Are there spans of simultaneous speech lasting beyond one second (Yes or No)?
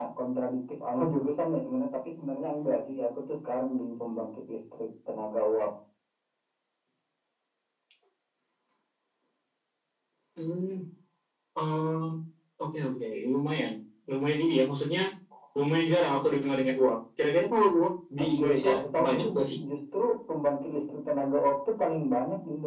Yes